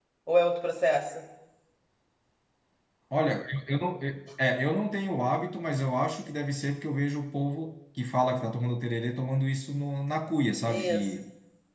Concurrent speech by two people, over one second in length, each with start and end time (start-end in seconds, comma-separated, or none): none